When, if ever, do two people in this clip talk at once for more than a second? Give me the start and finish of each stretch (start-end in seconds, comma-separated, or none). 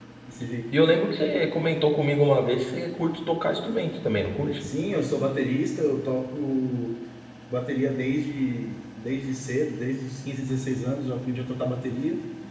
none